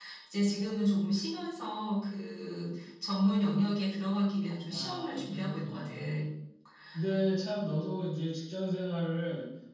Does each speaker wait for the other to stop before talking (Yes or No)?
No